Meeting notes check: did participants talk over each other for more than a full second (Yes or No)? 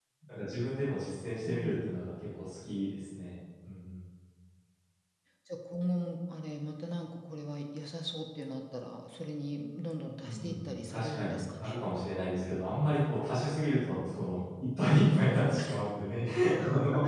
Yes